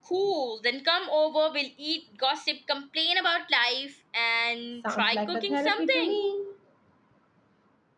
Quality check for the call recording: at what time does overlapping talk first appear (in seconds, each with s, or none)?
4.8 s